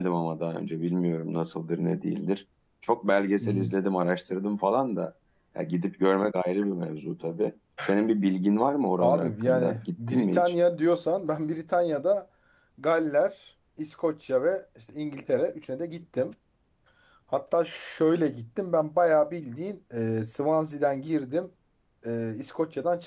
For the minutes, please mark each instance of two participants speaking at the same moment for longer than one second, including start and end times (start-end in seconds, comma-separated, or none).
9.0-10.5